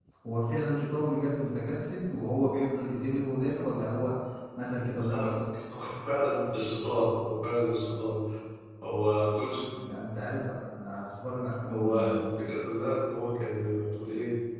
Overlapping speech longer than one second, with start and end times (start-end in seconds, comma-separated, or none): none